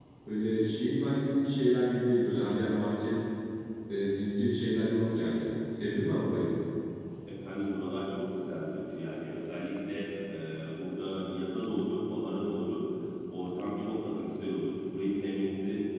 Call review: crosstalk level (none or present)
none